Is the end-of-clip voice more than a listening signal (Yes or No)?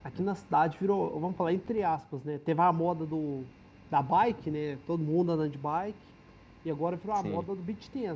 No